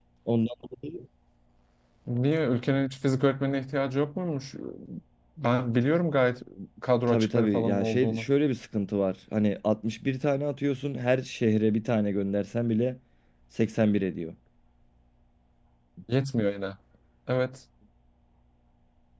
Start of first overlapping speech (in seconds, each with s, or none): 7.1 s